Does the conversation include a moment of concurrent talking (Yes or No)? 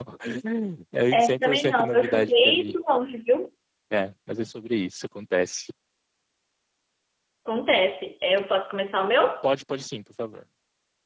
Yes